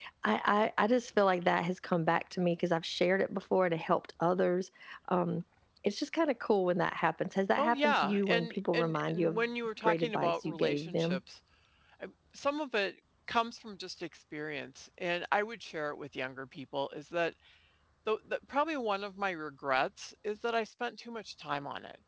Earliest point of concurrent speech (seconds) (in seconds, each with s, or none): 7.6 s